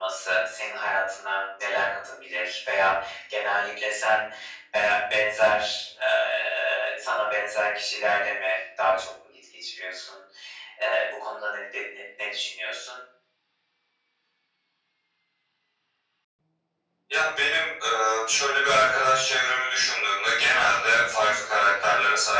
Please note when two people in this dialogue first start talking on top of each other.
none

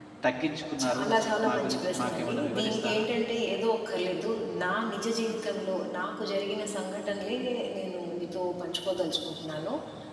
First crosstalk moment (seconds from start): 0.8 s

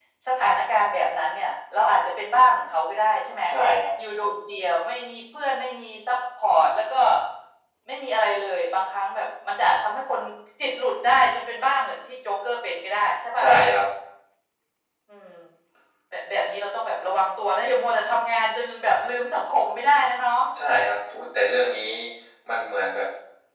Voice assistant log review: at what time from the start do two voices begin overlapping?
none

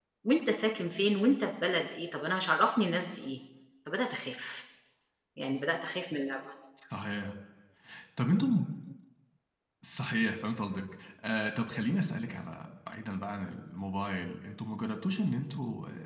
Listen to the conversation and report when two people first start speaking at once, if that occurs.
none

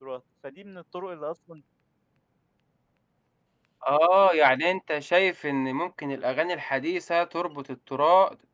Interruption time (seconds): none

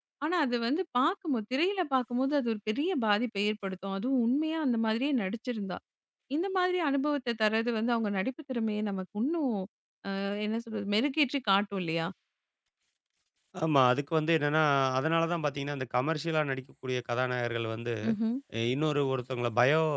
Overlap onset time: none

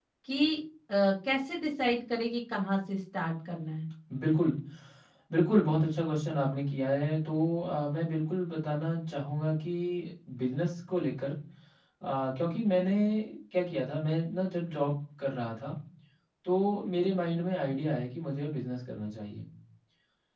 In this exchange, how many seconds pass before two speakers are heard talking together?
none

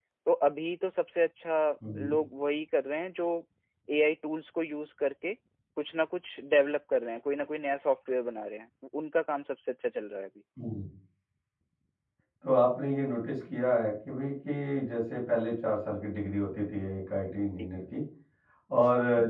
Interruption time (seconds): none

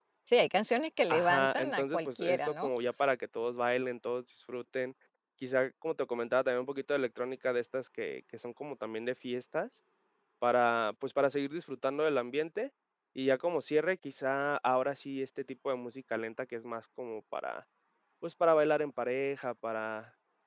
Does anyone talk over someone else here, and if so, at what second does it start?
1.1 s

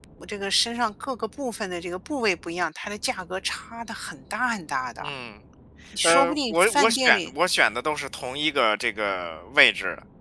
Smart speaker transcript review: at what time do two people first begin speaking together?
6.0 s

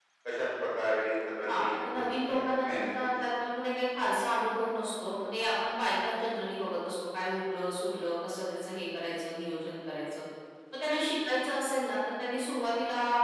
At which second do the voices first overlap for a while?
1.5 s

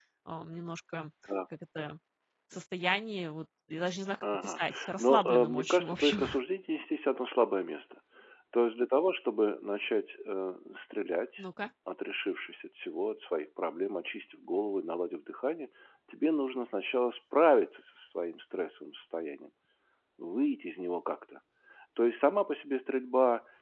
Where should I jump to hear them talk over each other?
4.2 s

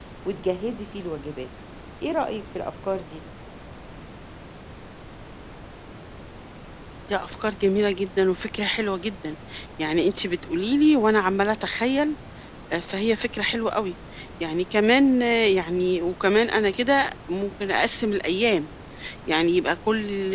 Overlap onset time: none

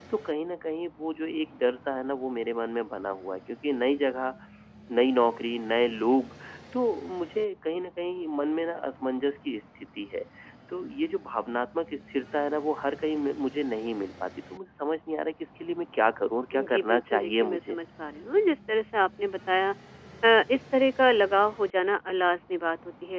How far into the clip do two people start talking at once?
16.5 s

